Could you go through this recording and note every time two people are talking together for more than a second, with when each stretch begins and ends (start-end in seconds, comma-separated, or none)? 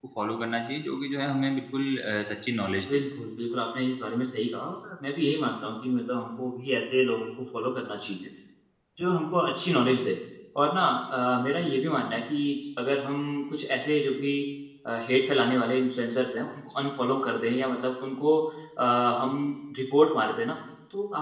none